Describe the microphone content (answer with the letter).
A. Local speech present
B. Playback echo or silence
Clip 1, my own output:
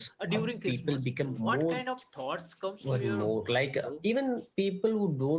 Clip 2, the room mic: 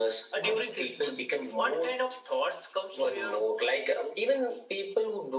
B